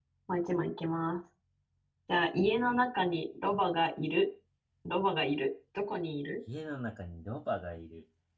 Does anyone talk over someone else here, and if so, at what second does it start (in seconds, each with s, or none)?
none